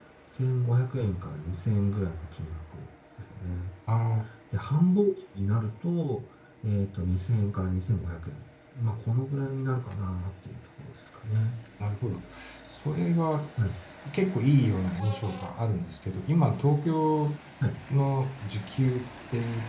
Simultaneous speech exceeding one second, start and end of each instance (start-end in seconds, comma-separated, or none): none